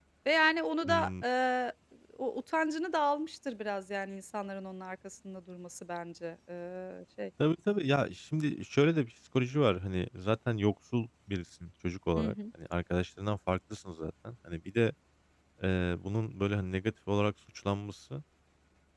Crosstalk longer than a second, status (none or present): none